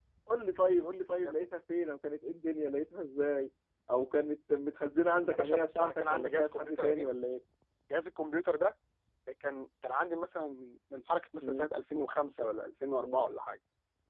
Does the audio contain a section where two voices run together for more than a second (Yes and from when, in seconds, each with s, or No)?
Yes, from 5.3 s